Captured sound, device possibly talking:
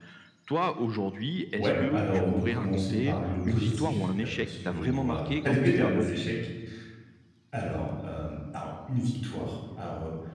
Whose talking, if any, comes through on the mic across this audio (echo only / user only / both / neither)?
both